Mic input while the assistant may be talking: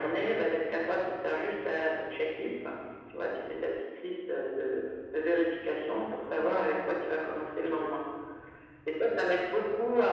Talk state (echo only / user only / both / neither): echo only